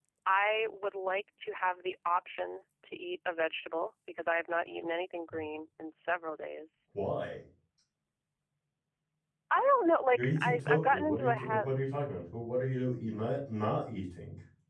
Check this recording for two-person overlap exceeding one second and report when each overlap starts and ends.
10.1-11.7

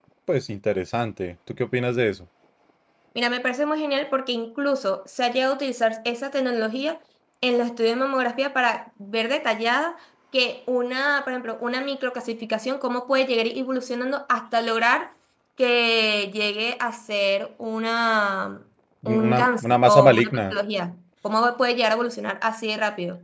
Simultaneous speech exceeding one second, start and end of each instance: 19.2-20.4

